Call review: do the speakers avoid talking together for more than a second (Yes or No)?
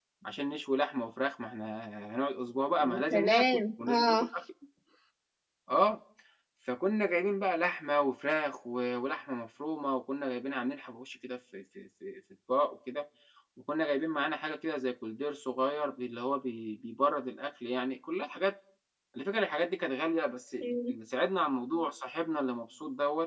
No